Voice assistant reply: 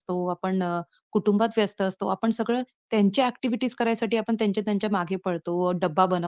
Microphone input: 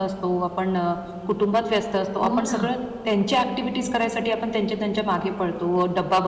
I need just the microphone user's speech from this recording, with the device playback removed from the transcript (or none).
हो ना.